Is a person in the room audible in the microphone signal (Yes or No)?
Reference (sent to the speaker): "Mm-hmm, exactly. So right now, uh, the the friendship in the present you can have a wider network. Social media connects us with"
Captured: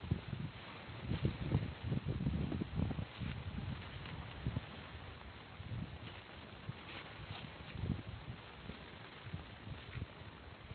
No